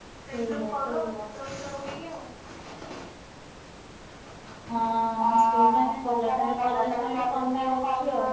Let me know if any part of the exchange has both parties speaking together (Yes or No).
Yes